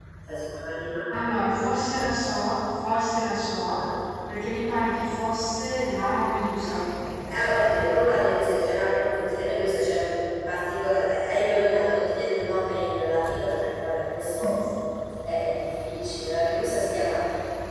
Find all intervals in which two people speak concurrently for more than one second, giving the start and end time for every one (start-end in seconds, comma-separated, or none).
none